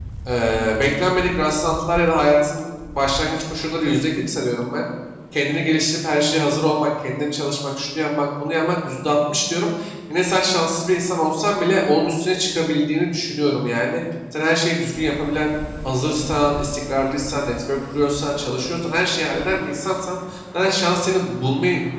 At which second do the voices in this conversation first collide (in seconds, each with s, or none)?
none